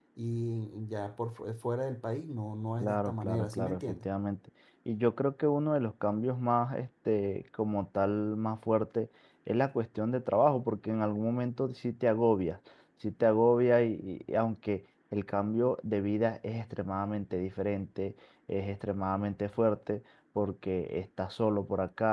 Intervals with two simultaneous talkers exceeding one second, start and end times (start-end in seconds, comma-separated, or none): 2.8-4.1